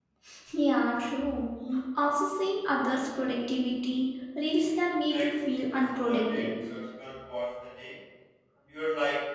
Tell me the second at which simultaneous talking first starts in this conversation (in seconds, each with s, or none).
5.1 s